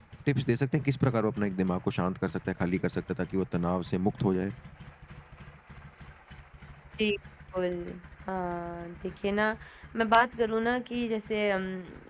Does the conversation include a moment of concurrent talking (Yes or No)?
No